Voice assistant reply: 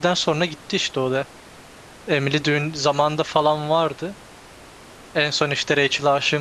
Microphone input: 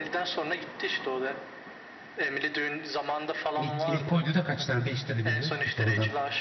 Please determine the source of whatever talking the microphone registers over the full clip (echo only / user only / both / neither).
both